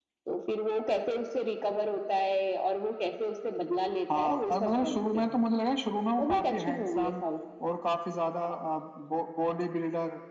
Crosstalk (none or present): present